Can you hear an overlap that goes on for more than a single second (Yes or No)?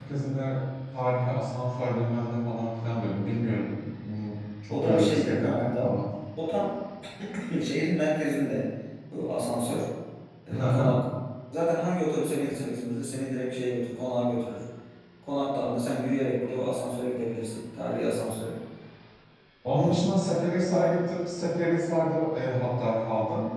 Yes